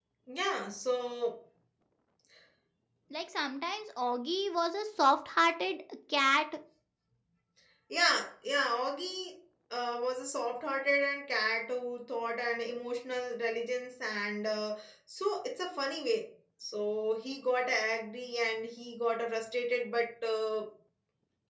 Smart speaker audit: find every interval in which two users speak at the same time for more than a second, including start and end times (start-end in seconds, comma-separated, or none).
none